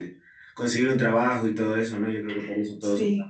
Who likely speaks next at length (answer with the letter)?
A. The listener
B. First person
B